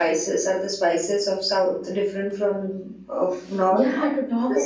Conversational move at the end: taking over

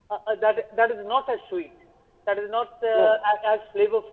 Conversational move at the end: listening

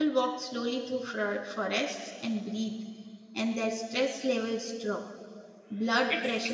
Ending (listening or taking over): listening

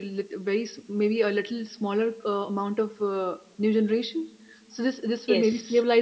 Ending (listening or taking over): listening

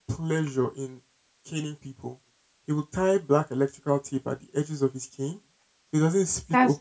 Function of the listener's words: listening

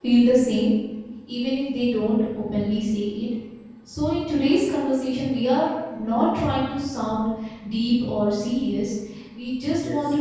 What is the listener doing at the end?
listening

